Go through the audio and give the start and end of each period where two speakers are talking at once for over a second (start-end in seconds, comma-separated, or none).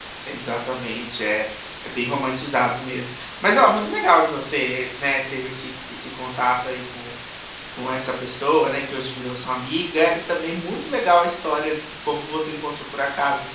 none